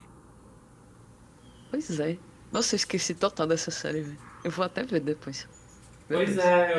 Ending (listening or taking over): taking over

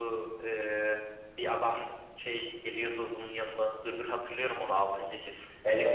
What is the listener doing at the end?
listening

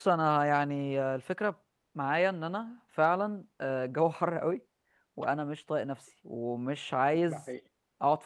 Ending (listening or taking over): listening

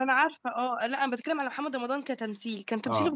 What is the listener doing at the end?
listening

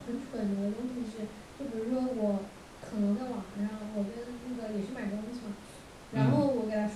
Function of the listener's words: listening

